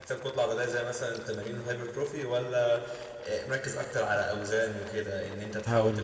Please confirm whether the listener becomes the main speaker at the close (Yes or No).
No